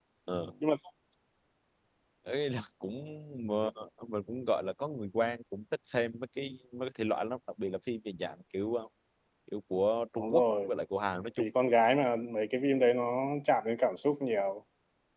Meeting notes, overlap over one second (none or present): none